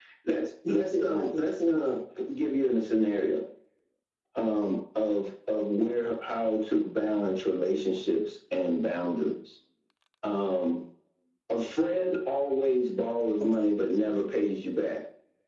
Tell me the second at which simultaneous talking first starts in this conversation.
0.7 s

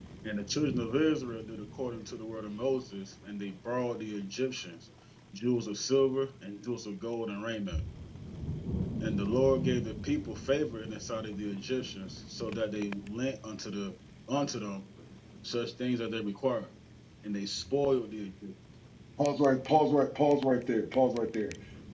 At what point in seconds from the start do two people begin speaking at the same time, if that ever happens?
none

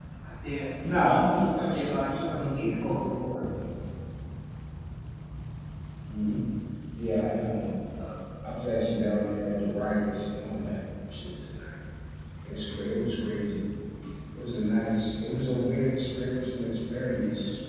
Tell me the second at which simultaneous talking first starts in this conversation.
1.5 s

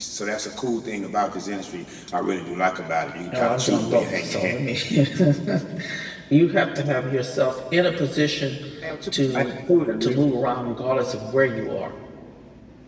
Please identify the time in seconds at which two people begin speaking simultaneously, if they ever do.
3.3 s

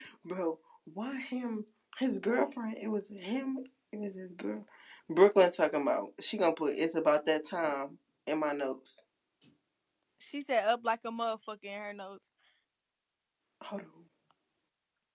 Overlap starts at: none

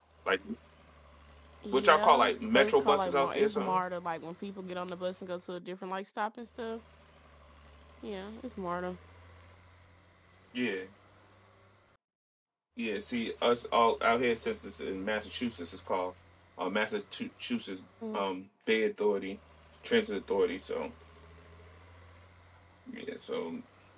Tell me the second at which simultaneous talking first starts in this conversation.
1.7 s

